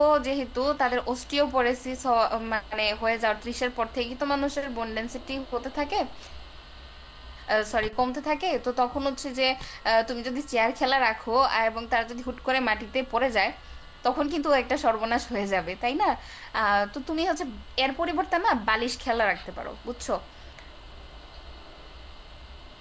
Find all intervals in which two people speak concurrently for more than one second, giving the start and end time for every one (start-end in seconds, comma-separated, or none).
none